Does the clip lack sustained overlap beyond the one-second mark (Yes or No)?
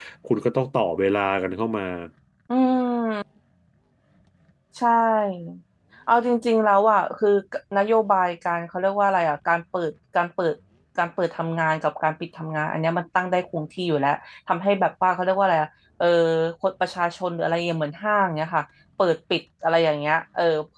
Yes